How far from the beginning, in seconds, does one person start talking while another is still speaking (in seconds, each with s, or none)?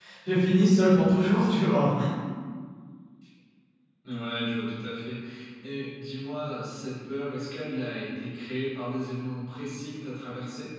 none